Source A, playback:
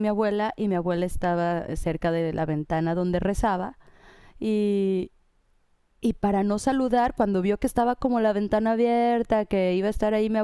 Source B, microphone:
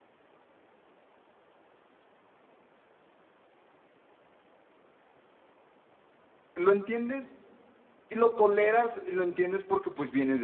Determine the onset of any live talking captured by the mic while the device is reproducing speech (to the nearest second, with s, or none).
7 s